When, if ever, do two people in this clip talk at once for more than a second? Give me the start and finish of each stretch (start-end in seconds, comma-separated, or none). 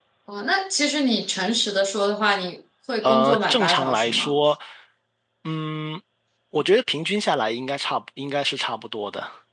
3.0-4.3